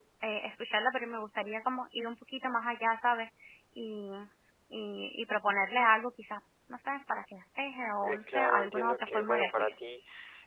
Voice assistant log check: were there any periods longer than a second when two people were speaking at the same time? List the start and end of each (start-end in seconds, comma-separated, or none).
8.0-9.7